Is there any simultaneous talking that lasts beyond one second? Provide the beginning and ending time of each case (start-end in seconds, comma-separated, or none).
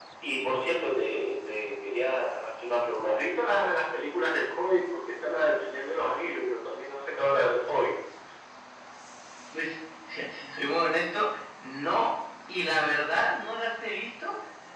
none